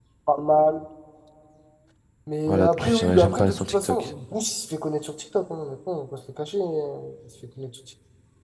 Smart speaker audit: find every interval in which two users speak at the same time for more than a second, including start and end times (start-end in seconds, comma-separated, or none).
2.5-4.1